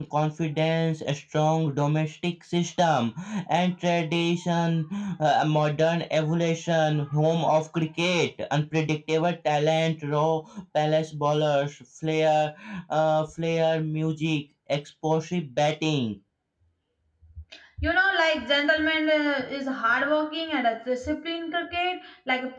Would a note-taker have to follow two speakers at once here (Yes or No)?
No